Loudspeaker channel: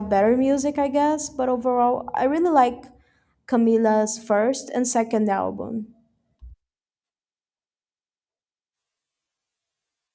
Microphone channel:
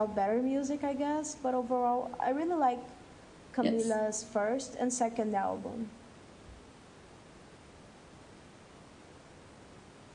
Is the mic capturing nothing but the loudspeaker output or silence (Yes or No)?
No